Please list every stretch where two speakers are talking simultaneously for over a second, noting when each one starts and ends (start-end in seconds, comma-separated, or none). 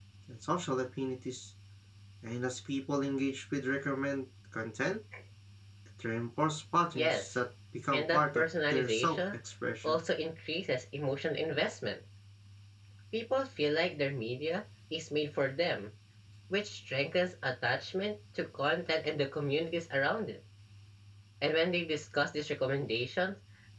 7.9-9.2